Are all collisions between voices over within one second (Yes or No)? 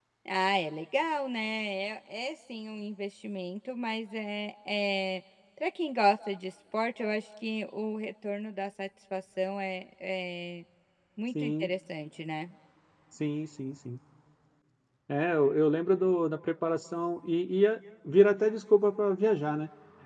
Yes